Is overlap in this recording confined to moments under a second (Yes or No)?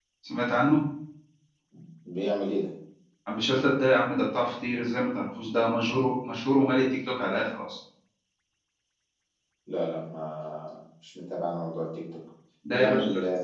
Yes